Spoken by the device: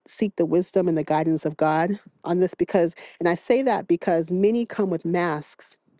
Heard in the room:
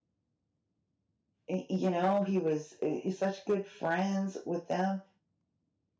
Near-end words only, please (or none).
y- you know, he was uh, such good friends with them